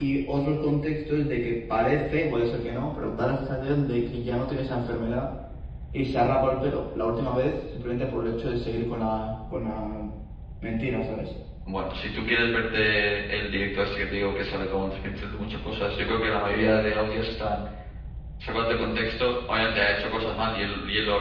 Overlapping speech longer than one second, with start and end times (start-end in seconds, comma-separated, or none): none